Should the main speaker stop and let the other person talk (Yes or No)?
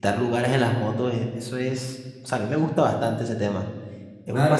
Yes